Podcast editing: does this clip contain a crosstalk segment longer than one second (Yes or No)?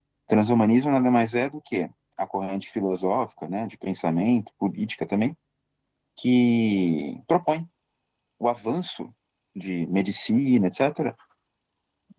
No